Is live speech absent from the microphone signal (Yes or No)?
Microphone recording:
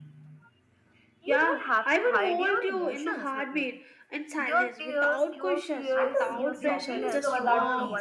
No